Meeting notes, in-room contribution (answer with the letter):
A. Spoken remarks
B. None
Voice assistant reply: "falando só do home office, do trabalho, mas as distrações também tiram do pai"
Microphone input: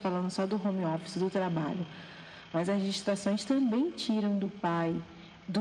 B